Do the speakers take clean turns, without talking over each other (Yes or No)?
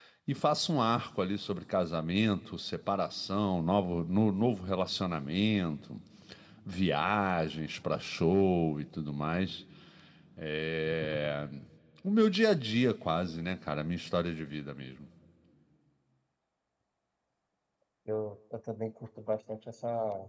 Yes